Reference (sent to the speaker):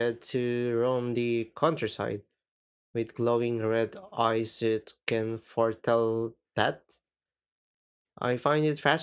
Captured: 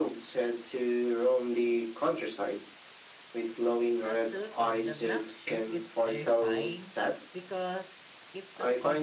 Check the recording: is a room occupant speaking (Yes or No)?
Yes